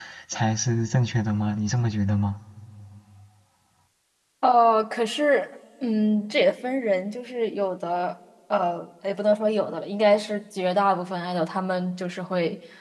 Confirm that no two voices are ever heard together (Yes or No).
Yes